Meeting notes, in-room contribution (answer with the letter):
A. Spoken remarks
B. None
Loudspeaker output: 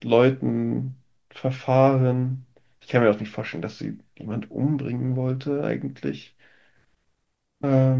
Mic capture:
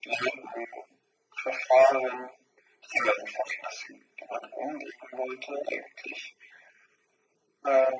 B